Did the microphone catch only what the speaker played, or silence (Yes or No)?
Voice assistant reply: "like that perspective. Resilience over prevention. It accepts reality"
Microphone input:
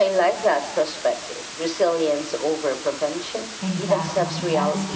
No